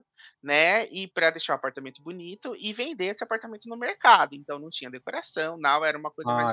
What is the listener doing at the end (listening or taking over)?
taking over